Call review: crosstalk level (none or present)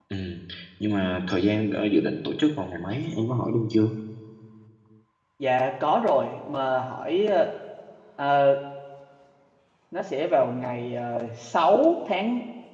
none